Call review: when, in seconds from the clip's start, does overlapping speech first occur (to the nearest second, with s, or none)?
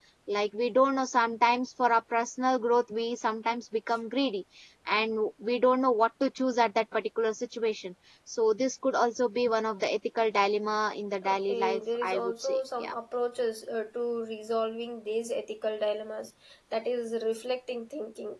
11 s